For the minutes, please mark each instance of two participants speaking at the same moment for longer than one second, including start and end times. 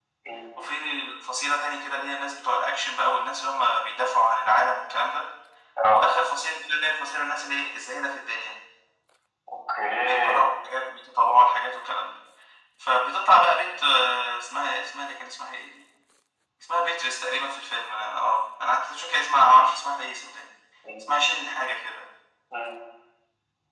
none

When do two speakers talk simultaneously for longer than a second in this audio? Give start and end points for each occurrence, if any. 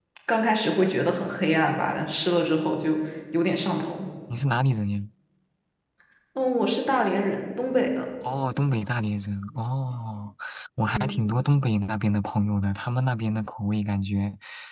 none

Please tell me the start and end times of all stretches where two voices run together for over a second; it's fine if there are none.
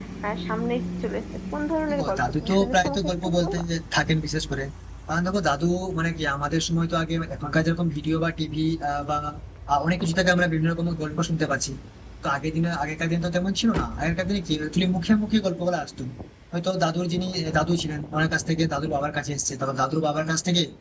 2.0-3.6

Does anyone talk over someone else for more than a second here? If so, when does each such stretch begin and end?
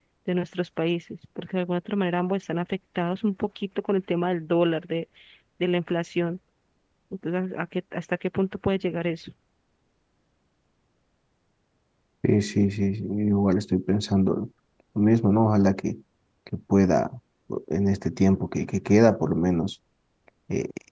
none

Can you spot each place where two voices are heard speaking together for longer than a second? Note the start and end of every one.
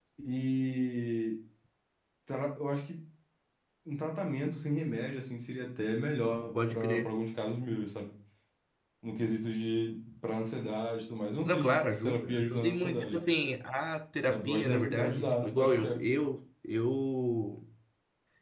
11.4-13.2, 14.3-16.0

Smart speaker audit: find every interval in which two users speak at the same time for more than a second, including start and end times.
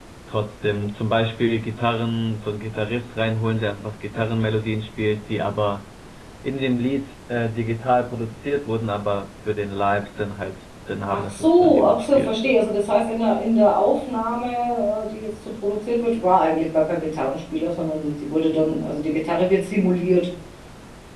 11.1-12.3

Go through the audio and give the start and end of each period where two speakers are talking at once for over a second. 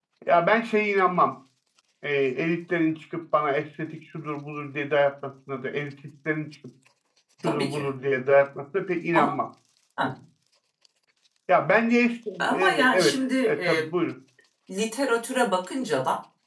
12.4-13.9

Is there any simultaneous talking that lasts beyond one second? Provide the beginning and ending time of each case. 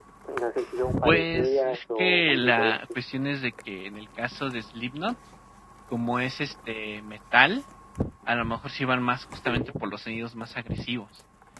1.0-2.8

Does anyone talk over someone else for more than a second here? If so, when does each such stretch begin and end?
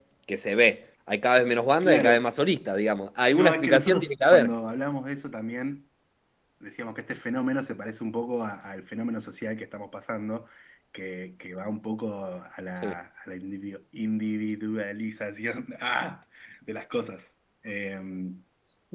3.3-4.5

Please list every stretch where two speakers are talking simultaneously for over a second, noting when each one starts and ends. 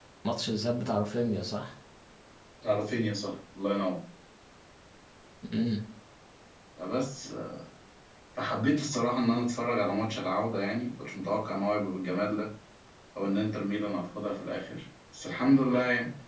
none

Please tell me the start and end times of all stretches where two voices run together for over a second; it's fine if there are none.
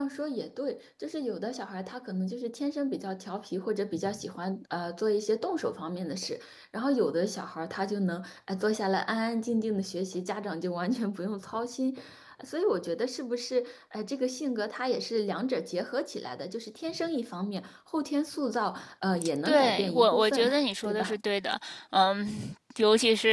19.4-21.2

